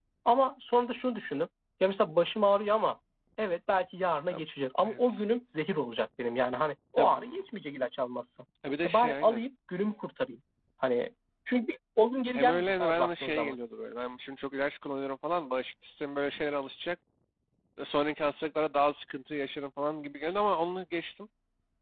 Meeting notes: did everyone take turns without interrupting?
No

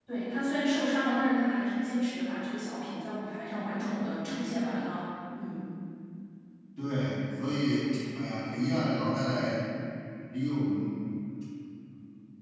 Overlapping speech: No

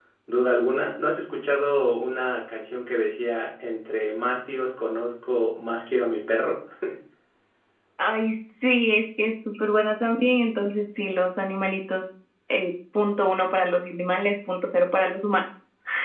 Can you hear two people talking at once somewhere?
No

